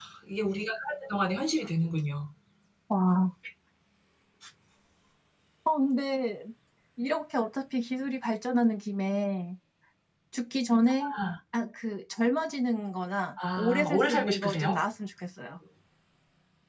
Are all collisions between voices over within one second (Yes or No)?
No